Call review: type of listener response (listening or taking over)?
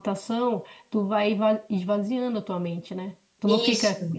listening